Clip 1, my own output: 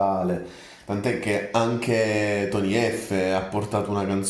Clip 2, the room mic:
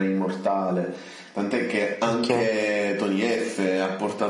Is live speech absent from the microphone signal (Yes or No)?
No